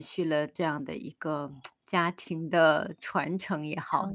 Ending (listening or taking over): taking over